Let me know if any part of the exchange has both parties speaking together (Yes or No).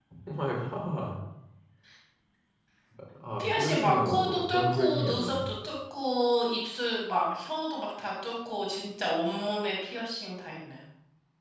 Yes